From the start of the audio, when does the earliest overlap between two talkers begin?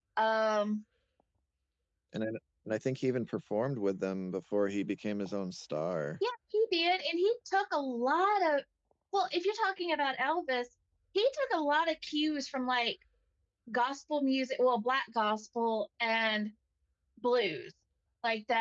none

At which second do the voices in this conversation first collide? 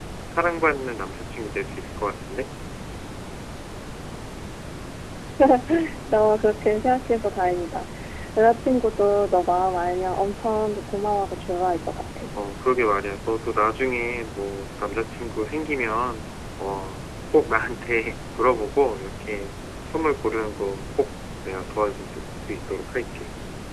none

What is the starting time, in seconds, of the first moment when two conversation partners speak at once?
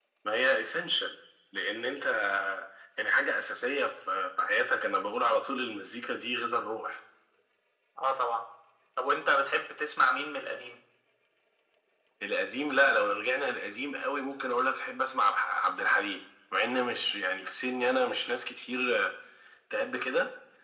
none

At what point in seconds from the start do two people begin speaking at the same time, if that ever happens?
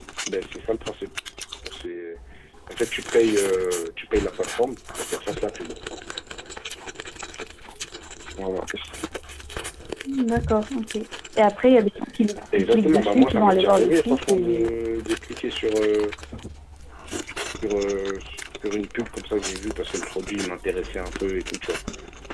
12.5 s

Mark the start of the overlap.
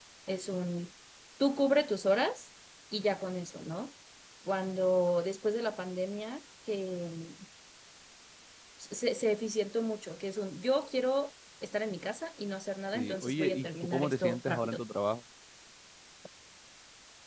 12.9 s

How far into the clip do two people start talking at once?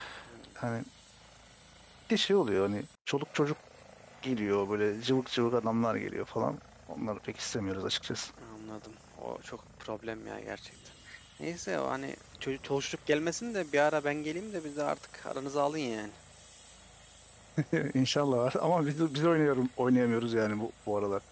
none

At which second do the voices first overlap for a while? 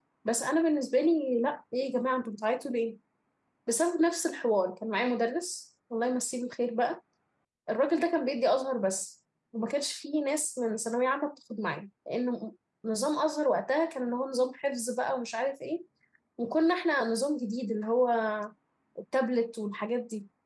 none

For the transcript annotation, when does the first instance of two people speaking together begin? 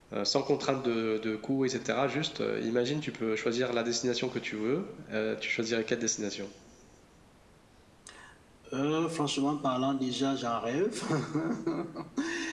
none

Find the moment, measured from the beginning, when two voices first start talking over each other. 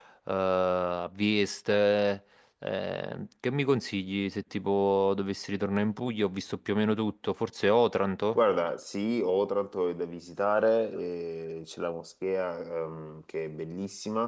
none

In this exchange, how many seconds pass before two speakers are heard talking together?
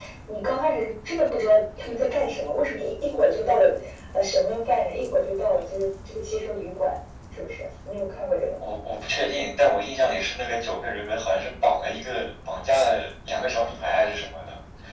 none

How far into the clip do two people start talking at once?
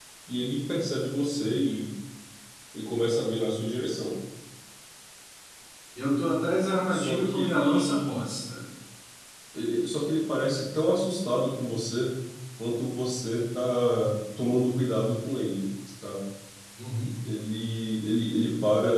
6.9 s

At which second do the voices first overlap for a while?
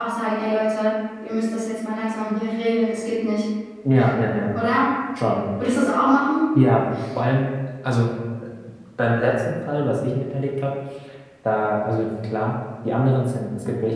none

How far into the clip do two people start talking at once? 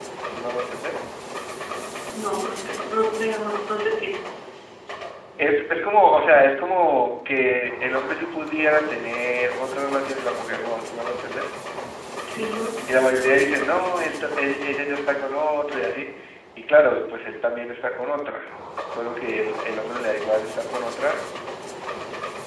none

